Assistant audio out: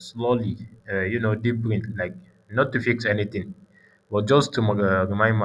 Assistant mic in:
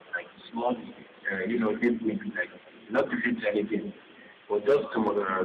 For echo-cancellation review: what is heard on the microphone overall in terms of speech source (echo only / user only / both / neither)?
echo only